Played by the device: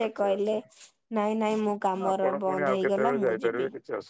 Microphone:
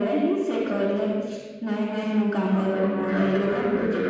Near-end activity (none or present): none